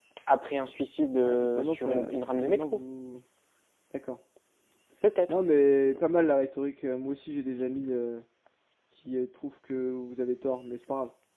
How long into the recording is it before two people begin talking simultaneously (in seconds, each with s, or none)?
1.2 s